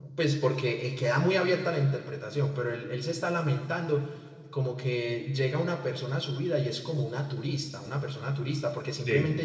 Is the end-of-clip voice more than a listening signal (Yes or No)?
No